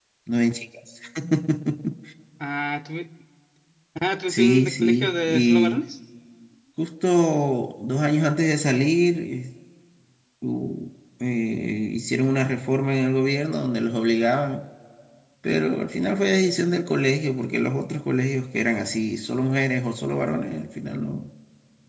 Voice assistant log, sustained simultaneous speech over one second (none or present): present